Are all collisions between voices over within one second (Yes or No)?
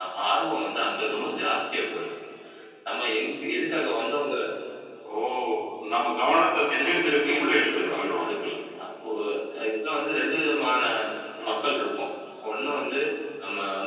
No